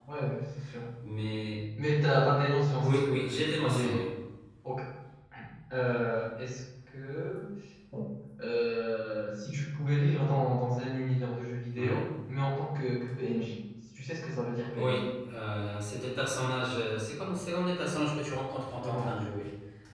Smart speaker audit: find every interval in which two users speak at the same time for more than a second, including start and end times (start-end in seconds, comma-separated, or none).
2.8-4.0